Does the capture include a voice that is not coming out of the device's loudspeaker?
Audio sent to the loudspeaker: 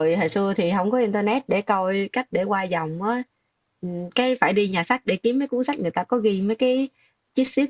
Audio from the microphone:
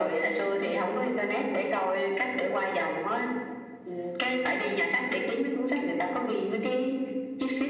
No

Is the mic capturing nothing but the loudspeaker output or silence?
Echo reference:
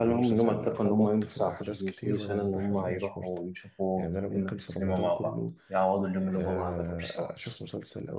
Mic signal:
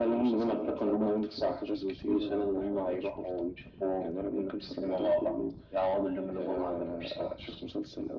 Yes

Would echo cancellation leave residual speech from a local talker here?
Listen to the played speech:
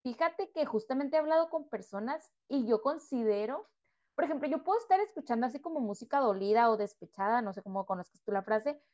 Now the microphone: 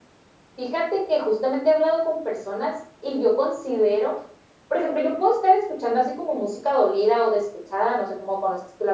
No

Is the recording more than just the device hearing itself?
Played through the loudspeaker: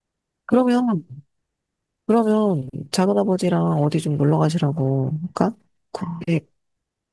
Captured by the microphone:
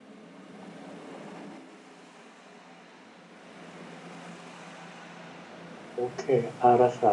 Yes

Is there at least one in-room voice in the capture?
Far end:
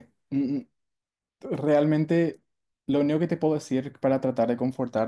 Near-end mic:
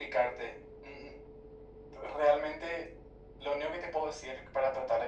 No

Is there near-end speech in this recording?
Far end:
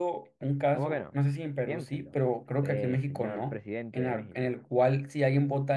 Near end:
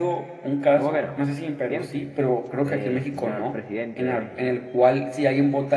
No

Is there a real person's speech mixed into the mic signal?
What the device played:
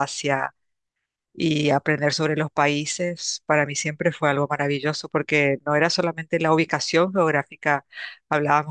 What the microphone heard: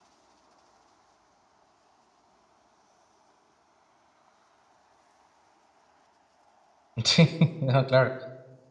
Yes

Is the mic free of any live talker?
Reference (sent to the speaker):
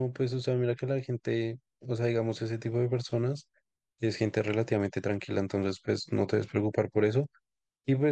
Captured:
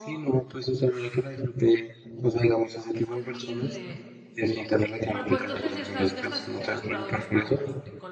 No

